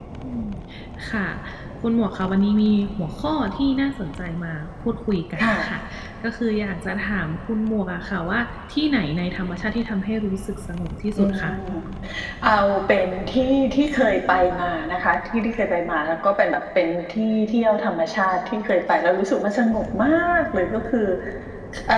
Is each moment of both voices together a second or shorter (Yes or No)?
Yes